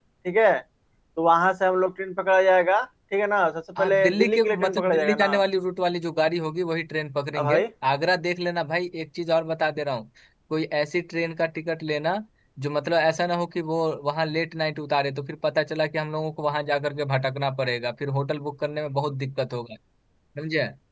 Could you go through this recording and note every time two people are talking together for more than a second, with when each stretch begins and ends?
3.8-5.3

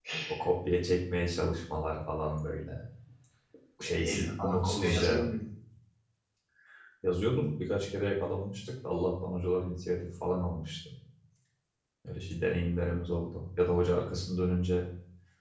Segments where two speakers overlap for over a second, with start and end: 3.9-5.2

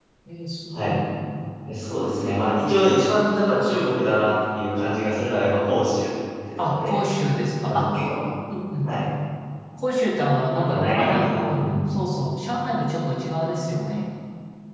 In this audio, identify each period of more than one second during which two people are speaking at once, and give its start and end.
10.6-11.8

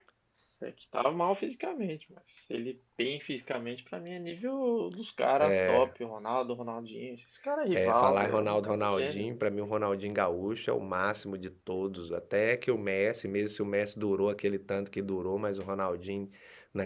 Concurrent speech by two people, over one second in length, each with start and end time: 7.7-9.2

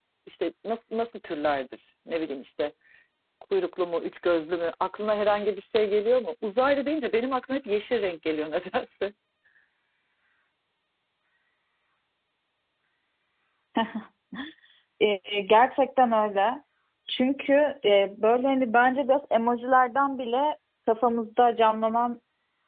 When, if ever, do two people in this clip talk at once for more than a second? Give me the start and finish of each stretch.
none

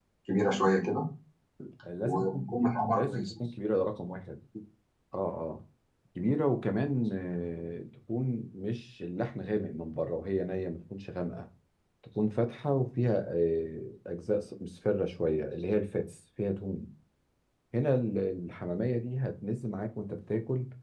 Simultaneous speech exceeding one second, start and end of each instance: 2.0-3.3

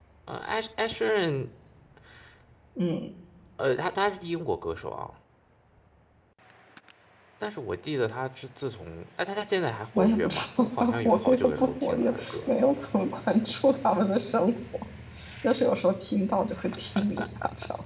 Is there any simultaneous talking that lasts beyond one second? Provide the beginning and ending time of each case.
10.0-12.5

